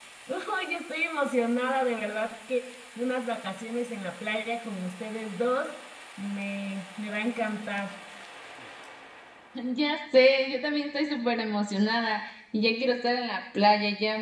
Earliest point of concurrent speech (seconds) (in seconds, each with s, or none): none